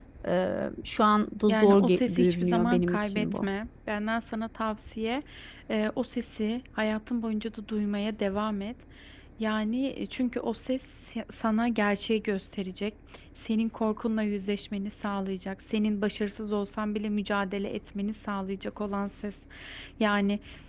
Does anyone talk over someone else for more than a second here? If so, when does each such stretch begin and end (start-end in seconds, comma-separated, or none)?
1.5-3.5